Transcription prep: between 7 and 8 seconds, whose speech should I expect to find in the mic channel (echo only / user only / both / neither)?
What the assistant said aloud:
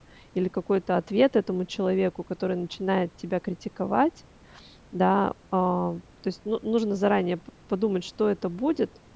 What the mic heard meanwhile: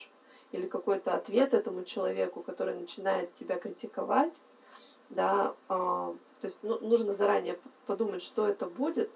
echo only